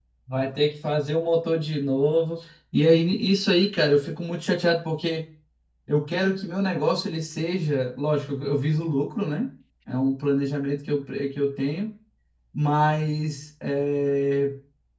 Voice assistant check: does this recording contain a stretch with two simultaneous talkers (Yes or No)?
No